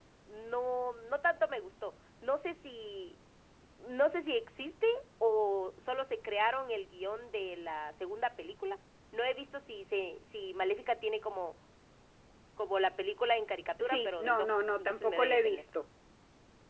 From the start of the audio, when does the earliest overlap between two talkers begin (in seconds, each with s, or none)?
13.8 s